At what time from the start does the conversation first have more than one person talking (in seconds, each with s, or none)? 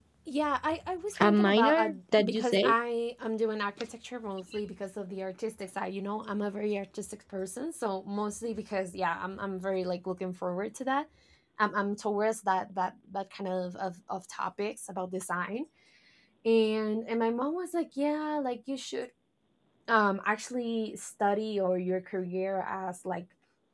1.2 s